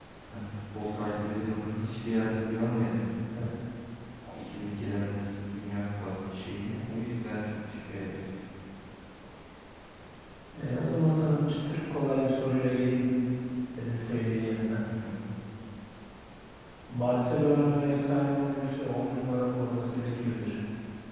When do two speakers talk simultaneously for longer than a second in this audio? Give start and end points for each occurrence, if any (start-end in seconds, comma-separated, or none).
none